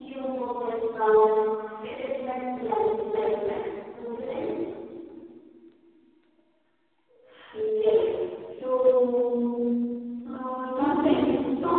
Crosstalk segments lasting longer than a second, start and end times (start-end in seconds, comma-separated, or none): none